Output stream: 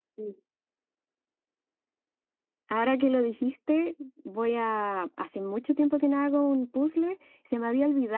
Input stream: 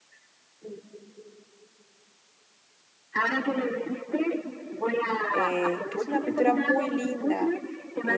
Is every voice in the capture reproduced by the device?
No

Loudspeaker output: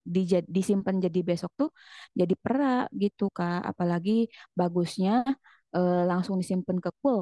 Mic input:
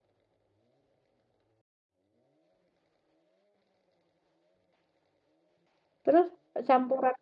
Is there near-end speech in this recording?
Yes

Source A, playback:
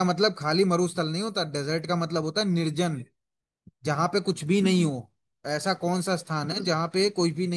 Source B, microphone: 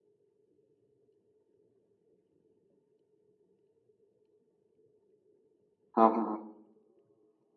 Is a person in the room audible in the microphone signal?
Yes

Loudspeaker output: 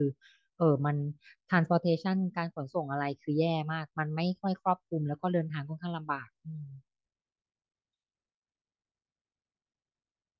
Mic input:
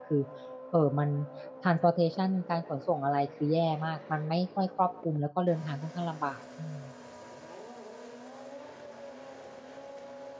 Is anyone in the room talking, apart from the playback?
No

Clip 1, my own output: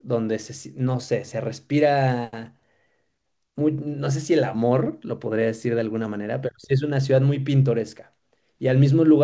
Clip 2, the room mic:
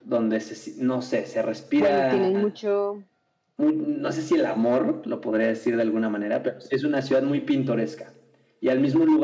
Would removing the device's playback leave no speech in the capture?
No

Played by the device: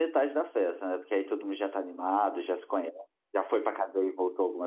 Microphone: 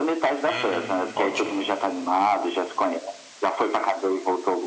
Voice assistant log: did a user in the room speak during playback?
Yes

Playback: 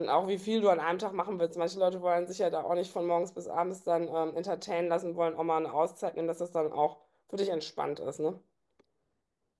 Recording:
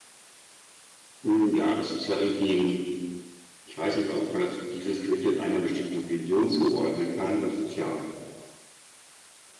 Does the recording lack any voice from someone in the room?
No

